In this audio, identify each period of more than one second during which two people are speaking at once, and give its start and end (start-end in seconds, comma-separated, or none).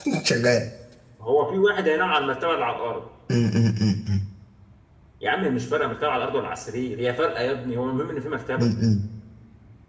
none